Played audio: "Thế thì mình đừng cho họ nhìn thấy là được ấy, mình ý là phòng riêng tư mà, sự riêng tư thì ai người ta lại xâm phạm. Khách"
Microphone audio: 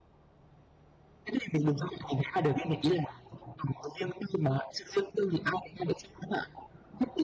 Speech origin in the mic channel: echo only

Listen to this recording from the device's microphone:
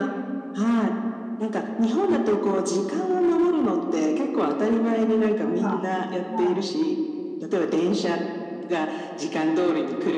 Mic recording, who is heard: both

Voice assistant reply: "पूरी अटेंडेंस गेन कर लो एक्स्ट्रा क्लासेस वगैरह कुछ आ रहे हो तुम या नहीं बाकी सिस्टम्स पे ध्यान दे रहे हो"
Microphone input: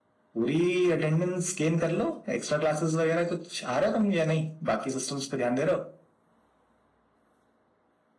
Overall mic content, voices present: echo only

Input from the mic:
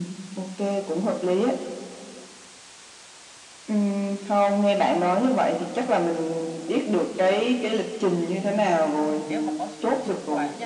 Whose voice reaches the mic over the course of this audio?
both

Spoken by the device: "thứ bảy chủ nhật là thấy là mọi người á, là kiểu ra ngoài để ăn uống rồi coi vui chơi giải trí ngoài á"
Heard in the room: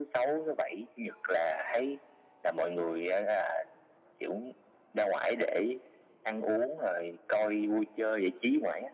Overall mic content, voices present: echo only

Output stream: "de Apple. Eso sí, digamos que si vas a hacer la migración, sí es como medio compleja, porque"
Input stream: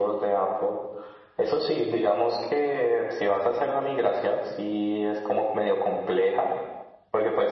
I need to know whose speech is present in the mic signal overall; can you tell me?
echo only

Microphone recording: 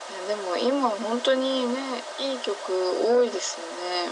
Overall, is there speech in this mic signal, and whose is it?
echo only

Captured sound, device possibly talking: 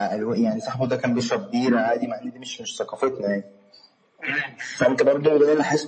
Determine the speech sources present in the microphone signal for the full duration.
echo only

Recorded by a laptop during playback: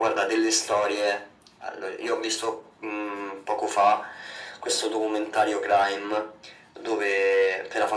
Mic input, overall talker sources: echo only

